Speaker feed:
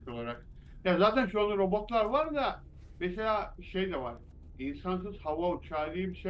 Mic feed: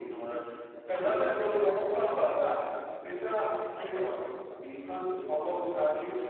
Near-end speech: none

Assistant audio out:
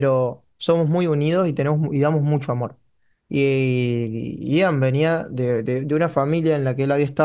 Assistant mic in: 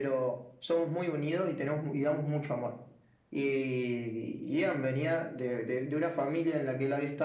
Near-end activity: none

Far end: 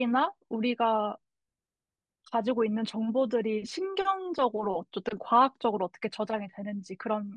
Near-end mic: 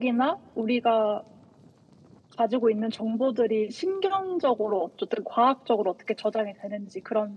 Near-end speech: none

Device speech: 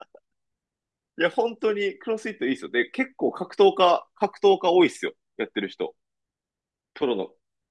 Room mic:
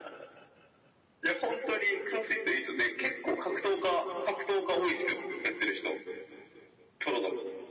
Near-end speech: none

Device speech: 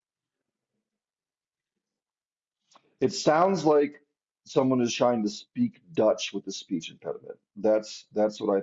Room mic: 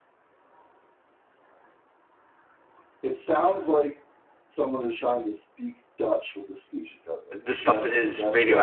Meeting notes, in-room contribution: present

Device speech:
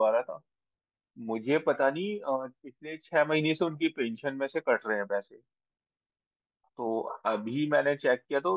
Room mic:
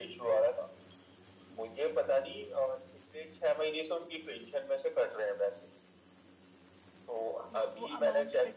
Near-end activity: present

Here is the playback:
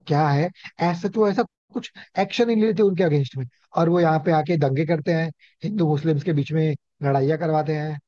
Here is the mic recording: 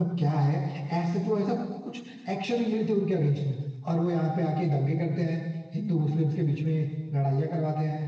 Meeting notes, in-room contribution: none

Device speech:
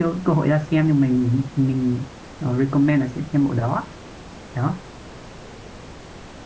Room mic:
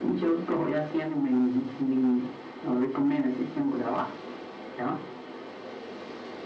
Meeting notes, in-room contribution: none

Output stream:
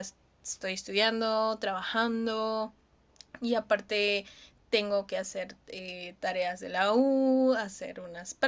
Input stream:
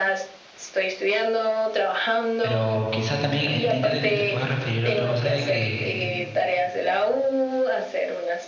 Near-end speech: present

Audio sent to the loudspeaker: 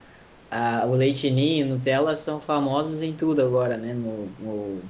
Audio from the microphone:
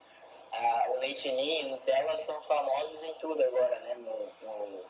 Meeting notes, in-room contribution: none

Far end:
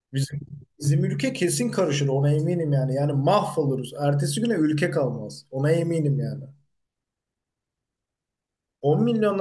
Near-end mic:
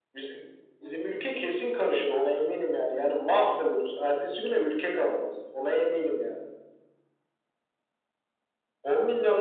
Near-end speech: none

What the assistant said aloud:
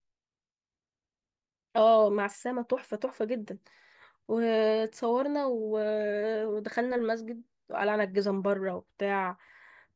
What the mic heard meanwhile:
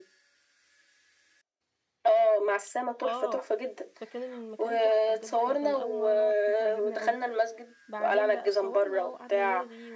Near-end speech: present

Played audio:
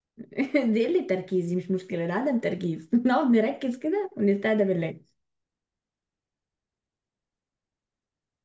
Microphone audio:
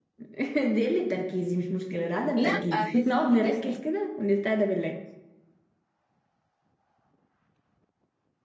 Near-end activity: present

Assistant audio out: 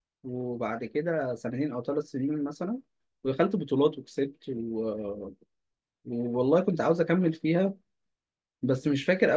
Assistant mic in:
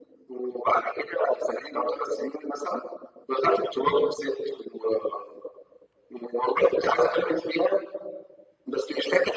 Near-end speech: none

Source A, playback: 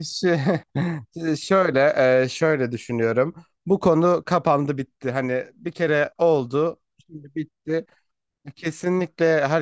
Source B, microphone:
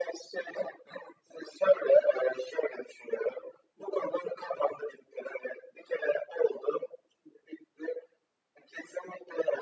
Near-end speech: none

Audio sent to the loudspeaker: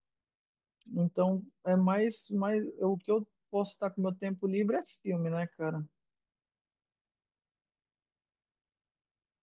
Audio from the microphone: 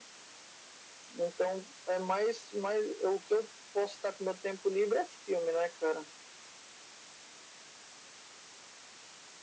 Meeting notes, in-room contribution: none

